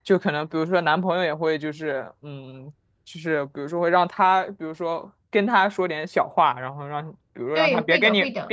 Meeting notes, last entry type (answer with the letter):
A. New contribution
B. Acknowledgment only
A